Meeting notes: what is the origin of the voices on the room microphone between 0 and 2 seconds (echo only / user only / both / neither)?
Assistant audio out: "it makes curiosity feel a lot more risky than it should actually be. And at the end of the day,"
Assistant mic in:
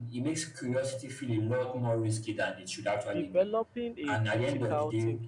echo only